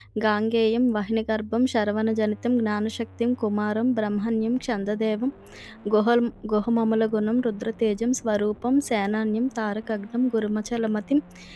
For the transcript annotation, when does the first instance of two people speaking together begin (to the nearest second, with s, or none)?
none